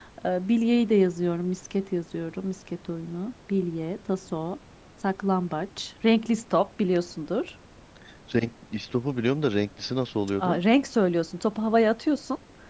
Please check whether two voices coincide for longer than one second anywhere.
No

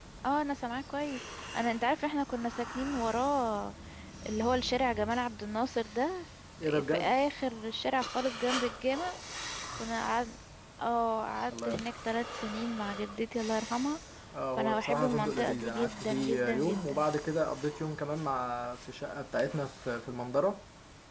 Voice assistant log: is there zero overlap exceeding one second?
No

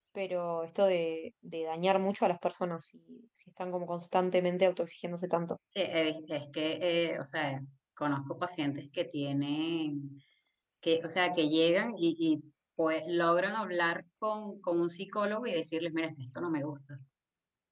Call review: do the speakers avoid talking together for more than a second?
Yes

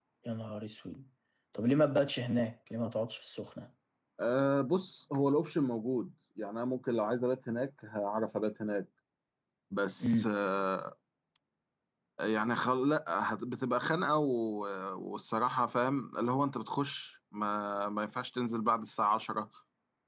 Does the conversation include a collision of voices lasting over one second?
No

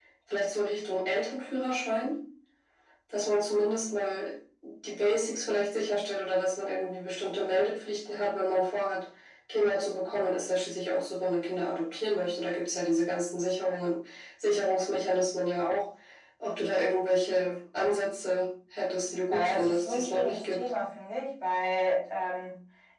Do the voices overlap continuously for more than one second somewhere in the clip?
Yes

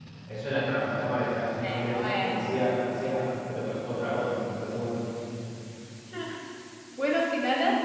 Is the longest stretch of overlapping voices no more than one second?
No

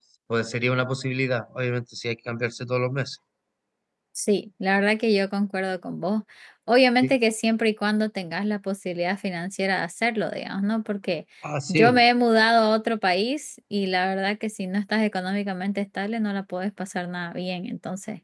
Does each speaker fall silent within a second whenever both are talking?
Yes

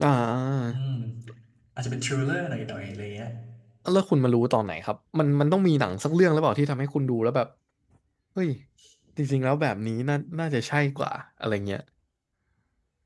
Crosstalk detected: No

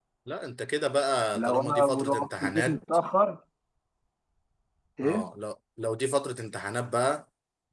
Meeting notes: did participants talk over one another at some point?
Yes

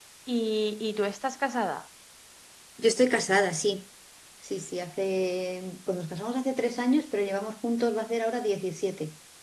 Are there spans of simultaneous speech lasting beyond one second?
No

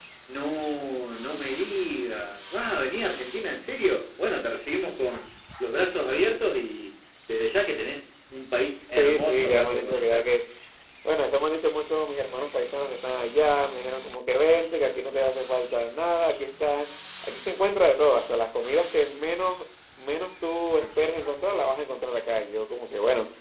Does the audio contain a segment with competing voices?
Yes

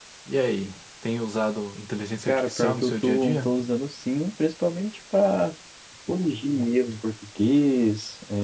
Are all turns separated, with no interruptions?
No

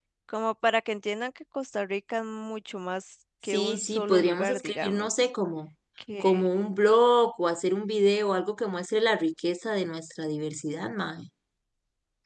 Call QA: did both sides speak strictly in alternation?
No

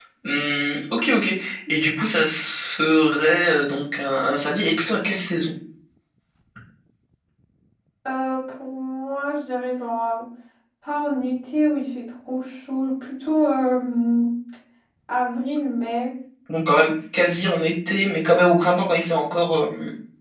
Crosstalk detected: No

